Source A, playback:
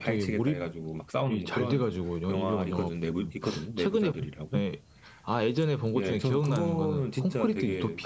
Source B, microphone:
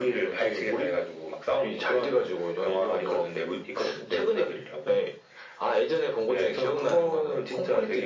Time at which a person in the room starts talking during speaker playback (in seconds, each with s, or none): none